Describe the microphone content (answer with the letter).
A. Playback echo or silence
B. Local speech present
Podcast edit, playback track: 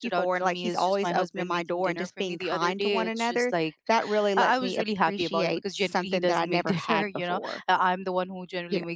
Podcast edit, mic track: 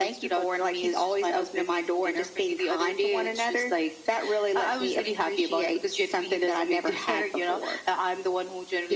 A